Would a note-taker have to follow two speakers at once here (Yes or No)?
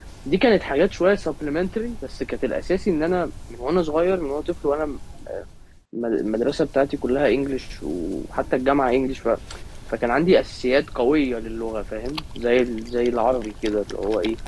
No